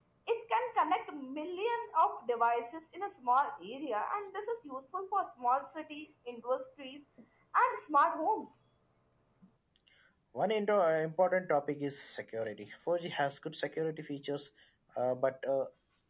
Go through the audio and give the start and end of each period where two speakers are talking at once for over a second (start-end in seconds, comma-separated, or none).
none